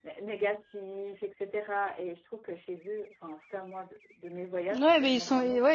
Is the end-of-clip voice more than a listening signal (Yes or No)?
Yes